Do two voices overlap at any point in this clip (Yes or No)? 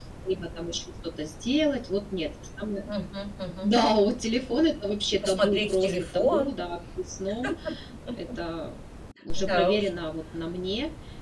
Yes